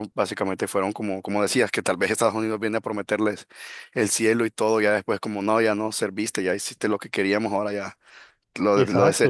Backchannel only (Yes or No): No